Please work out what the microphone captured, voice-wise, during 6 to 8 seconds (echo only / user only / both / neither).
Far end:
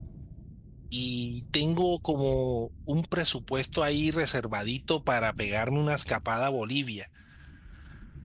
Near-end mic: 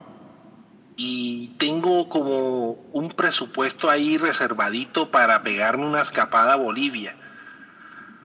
echo only